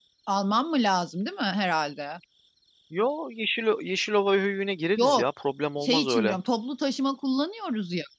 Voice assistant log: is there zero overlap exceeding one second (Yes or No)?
Yes